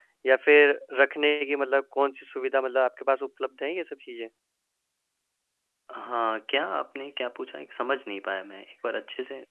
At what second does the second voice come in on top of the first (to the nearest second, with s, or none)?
none